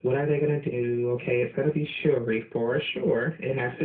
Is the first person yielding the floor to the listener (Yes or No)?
No